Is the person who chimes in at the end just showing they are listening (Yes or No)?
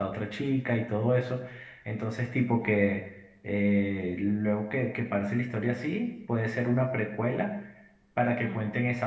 Yes